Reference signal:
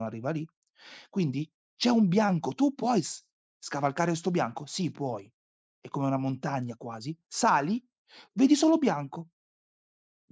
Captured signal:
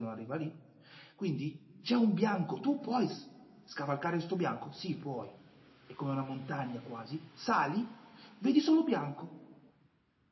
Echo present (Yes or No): Yes